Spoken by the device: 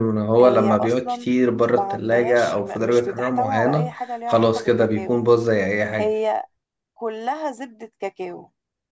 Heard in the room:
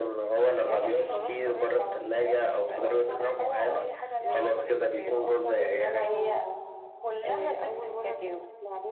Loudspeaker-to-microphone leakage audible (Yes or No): Yes